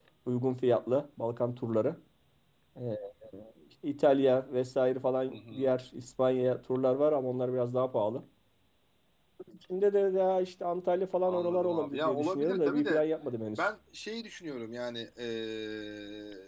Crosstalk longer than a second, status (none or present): present